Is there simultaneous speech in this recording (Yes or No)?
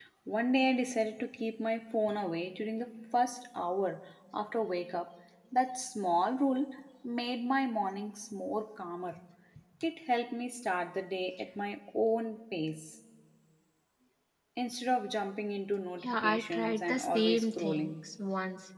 Yes